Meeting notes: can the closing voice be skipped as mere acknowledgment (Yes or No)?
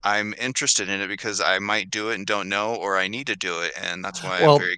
No